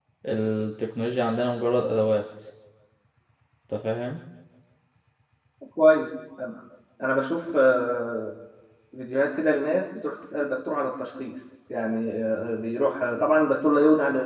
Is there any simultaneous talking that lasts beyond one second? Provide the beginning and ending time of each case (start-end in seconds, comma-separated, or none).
none